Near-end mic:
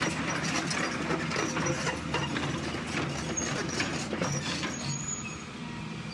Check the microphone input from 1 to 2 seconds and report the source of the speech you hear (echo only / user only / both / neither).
neither